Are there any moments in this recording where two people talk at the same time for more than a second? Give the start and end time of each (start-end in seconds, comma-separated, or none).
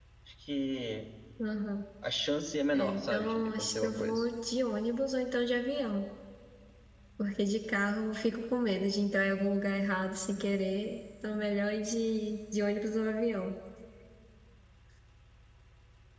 2.7-4.2